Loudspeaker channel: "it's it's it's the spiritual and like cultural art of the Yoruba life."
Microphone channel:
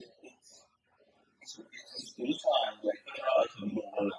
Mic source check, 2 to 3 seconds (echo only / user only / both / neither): echo only